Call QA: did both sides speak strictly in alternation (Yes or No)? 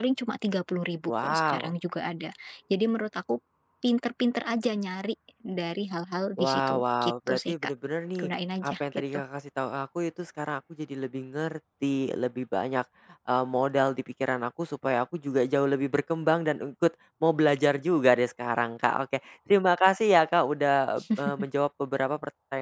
No